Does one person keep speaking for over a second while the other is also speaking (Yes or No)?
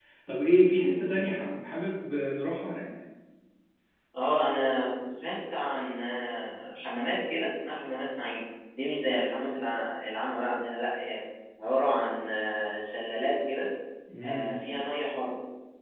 No